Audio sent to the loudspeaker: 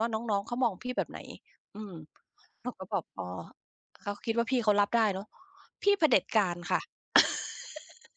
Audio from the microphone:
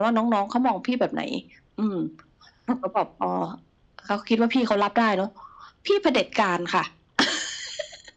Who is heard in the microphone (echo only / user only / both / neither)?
echo only